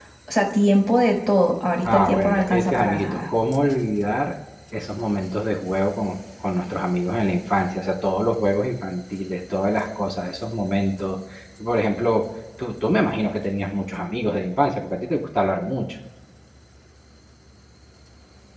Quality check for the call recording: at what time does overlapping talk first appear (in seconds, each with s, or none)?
1.8 s